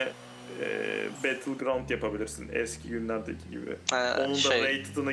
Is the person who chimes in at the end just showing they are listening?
Yes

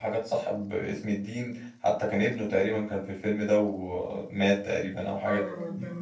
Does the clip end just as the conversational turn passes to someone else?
Yes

